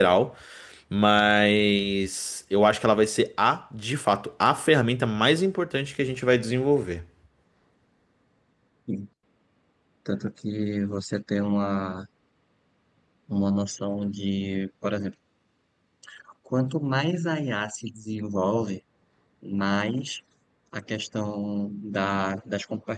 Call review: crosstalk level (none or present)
none